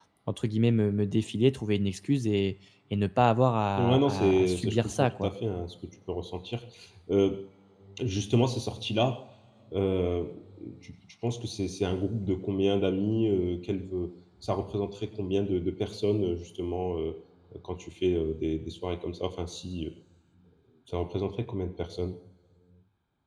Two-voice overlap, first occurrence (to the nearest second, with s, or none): 4 s